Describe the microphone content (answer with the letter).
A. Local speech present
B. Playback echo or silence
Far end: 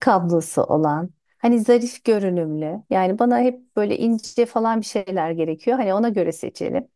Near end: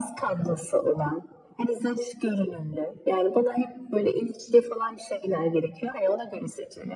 B